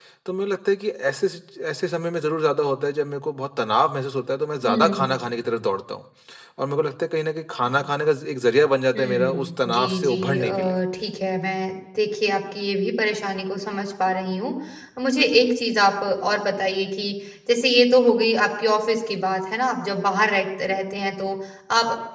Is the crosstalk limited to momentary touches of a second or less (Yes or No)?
No